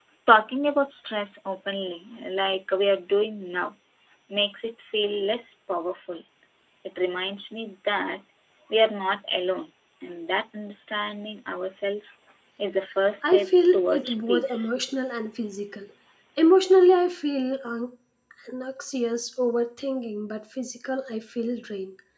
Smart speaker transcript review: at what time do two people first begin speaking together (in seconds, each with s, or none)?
13.2 s